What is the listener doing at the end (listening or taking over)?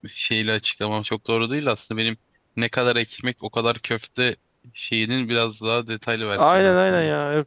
taking over